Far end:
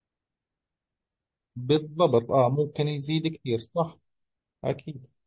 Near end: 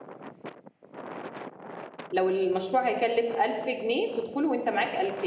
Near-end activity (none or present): present